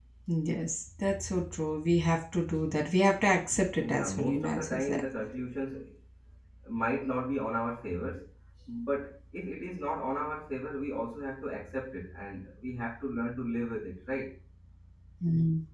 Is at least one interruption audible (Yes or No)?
Yes